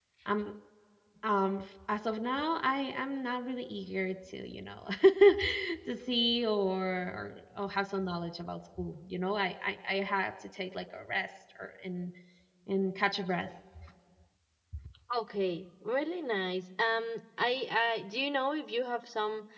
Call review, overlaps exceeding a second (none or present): none